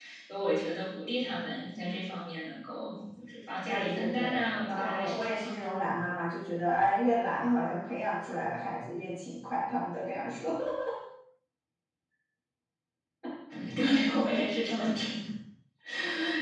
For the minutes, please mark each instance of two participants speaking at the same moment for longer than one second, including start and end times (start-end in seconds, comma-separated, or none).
3.7-5.5